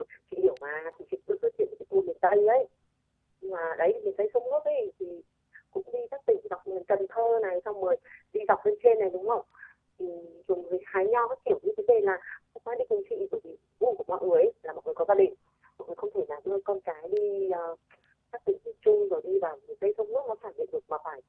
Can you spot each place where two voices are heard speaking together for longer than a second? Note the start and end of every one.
none

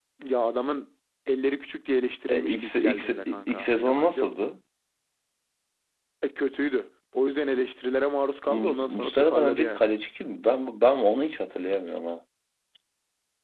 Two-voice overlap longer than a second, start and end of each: 2.3-4.5, 8.5-9.8

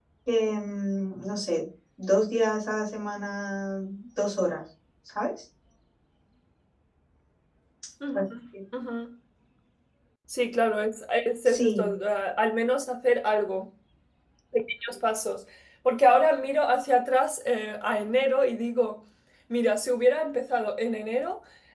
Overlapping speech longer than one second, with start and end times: none

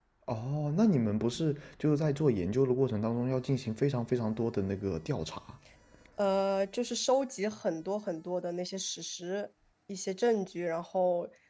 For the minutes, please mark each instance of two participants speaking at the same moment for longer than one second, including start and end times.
none

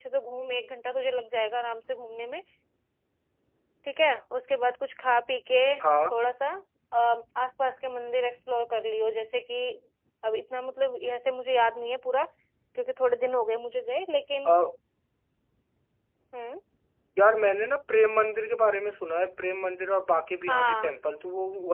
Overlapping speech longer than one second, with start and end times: none

